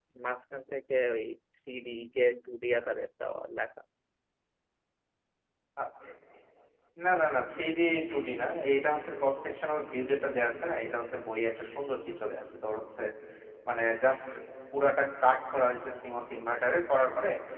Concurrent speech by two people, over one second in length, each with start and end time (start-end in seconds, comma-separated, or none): none